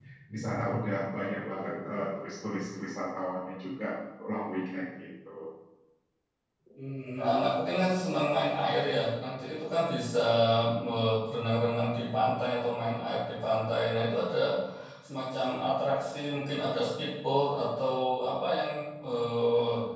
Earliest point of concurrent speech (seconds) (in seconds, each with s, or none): none